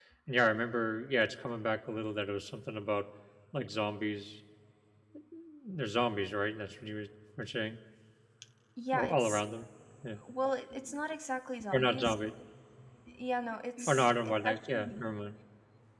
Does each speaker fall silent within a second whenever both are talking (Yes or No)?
No